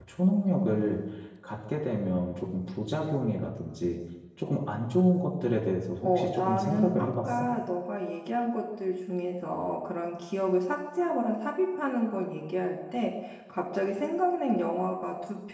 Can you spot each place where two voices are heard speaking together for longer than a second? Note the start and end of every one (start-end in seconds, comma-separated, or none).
6.0-7.5